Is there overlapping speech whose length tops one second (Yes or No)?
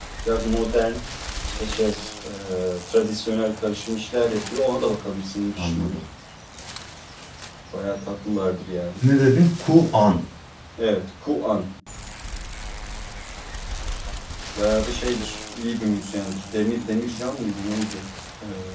No